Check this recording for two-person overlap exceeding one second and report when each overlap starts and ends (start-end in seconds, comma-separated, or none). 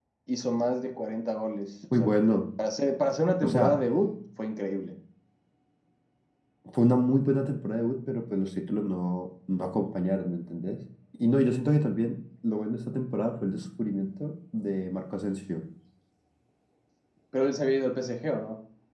none